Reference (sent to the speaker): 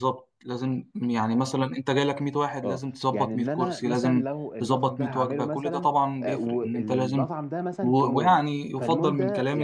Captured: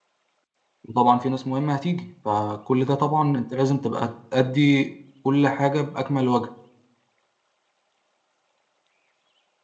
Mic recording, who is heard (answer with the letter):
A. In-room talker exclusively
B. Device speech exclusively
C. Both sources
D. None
A